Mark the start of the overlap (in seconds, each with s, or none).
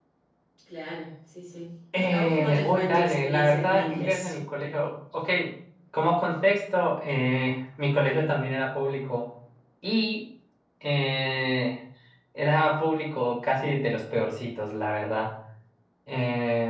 1.9 s